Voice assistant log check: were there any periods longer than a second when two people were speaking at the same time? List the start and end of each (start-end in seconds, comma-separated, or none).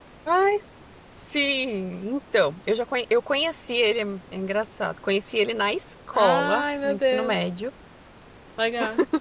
6.1-7.3